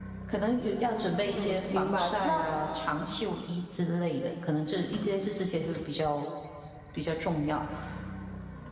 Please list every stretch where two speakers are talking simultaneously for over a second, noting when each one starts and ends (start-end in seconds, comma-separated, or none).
0.9-2.4